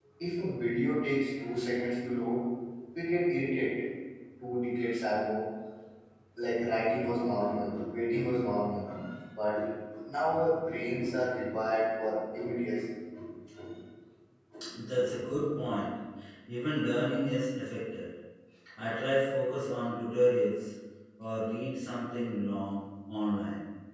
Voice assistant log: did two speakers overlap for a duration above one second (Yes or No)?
No